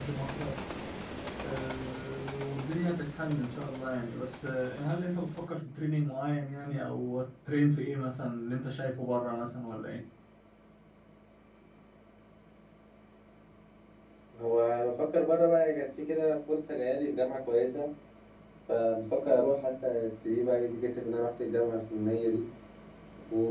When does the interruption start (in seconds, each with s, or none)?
none